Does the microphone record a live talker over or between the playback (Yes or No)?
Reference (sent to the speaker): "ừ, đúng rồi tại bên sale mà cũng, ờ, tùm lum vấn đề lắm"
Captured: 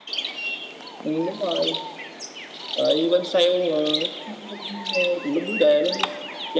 No